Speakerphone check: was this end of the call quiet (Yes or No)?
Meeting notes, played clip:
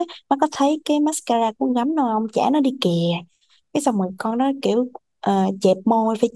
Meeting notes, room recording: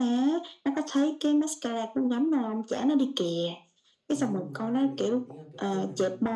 No